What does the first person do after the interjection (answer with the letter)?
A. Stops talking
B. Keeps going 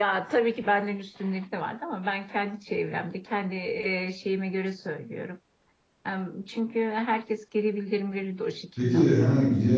A